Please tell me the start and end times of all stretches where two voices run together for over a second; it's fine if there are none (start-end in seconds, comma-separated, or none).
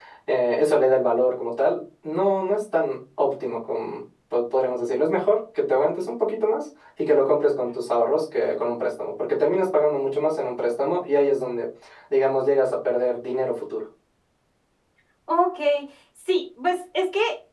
none